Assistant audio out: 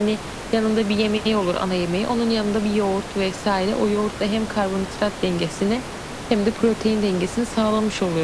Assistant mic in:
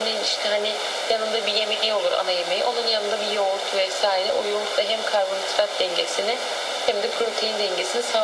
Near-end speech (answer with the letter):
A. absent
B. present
A